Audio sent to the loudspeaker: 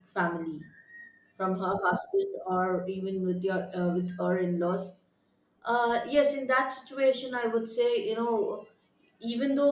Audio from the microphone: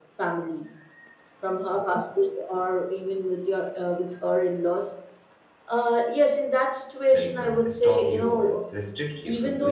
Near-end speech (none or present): present